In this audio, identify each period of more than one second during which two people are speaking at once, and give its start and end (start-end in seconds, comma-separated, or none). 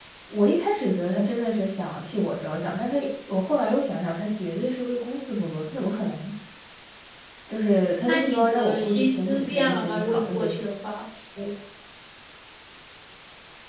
8.0-10.5